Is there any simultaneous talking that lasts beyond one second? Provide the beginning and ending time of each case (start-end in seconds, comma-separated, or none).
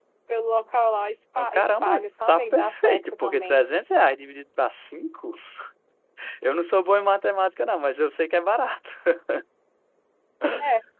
1.4-3.6